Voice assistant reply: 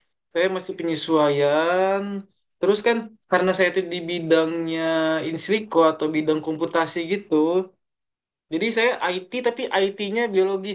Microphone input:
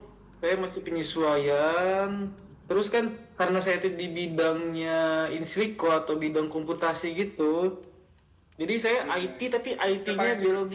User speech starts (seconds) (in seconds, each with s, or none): 9.0 s